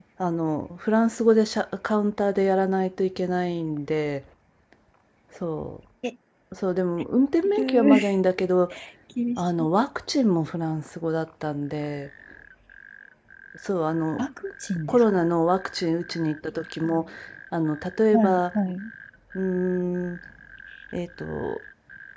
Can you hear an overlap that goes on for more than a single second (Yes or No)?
No